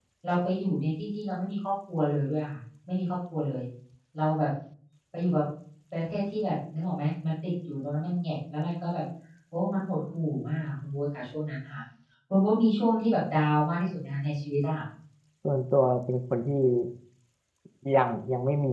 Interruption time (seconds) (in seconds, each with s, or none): none